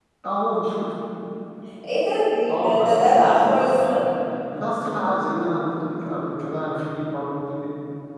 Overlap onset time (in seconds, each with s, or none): 2.6 s